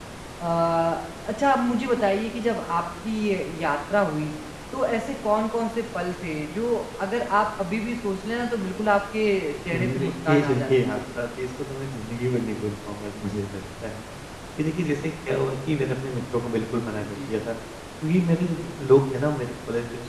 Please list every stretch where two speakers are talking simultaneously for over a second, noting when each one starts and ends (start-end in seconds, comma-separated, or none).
9.7-11.0